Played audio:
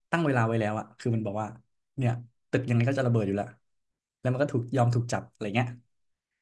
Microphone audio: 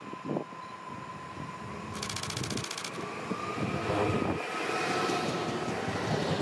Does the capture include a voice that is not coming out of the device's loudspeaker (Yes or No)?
No